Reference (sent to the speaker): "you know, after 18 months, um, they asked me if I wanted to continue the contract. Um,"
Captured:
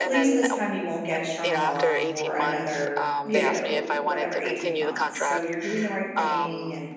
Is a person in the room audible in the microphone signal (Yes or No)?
Yes